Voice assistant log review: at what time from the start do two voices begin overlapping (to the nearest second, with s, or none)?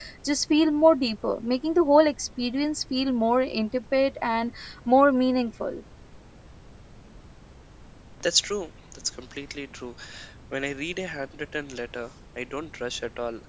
none